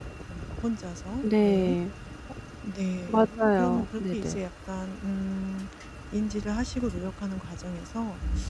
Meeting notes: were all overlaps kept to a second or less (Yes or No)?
No